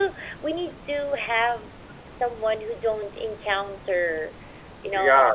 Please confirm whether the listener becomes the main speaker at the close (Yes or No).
Yes